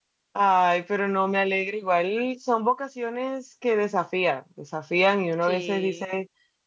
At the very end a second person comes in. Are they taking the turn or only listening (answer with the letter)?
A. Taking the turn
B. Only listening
B